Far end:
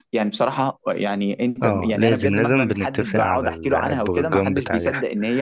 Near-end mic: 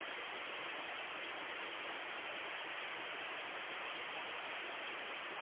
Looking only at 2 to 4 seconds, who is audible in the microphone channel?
neither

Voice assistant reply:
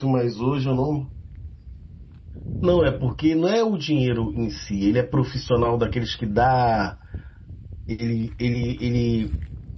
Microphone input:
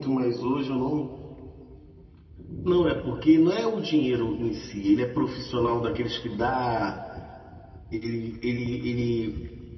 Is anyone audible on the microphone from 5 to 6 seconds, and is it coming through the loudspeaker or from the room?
echo only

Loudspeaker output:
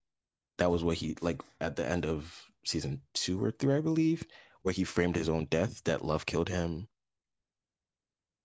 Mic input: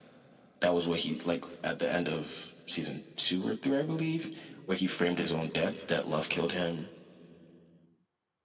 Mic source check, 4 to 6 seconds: echo only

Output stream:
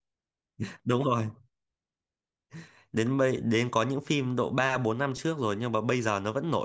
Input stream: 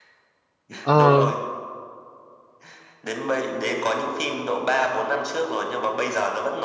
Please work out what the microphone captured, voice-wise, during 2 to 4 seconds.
echo only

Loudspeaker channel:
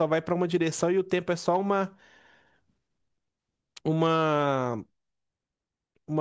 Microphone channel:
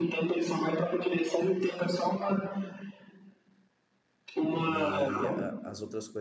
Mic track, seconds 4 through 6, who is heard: both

